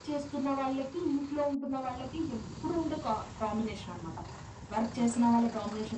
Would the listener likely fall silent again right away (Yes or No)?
Yes